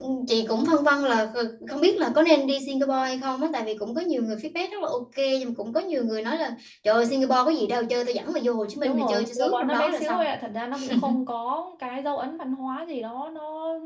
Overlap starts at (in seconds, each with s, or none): 8.8 s